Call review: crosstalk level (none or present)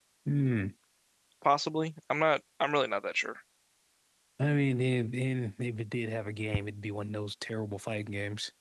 none